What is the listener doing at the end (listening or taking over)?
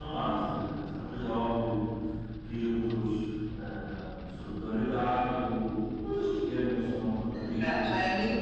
taking over